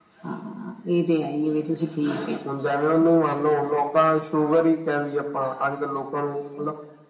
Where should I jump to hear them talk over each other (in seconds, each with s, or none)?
none